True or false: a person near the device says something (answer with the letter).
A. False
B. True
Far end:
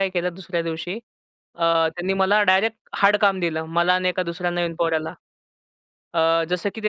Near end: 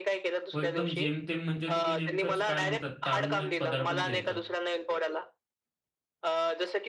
B